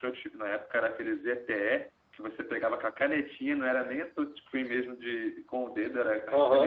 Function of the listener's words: taking over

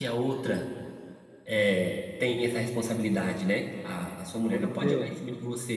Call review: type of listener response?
listening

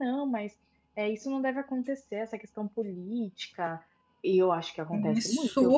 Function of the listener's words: taking over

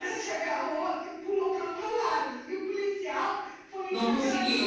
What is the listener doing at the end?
listening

